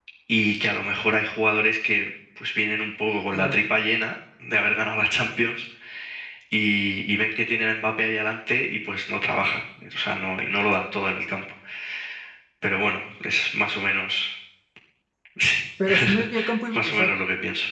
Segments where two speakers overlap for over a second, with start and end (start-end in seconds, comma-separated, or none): 15.8-17.1